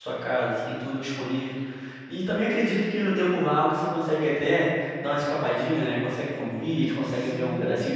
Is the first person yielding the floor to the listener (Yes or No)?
Yes